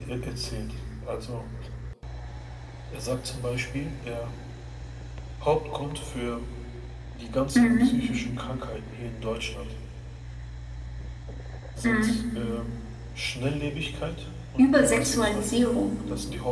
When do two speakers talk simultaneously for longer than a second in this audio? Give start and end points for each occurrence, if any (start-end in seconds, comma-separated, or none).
14.6-15.9